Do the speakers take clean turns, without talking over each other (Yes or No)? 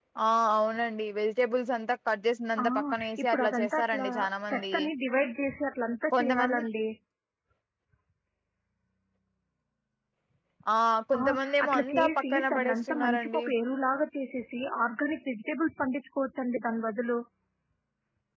No